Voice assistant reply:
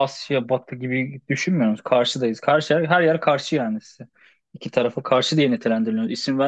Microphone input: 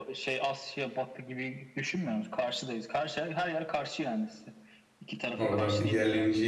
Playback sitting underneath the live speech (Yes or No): Yes